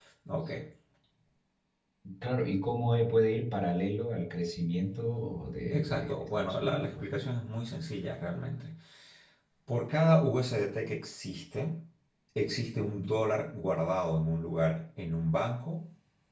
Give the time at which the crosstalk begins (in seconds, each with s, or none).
5.7 s